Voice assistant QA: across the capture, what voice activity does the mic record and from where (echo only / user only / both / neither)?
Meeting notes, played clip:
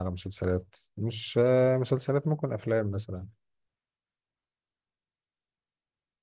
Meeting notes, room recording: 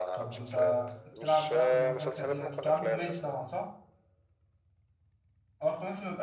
both